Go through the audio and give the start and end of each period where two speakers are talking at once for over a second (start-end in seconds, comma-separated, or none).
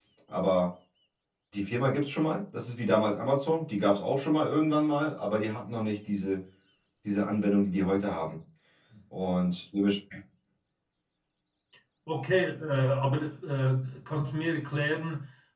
none